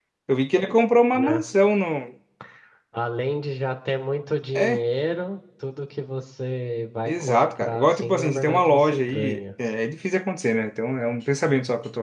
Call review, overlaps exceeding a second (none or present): present